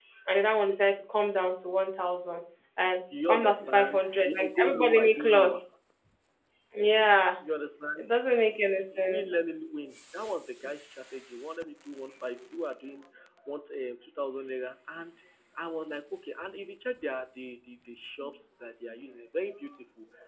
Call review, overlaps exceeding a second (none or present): present